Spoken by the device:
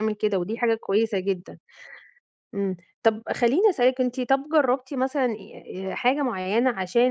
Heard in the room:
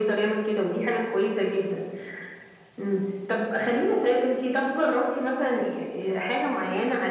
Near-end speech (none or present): none